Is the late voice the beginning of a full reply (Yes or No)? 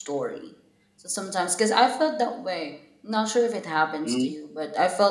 No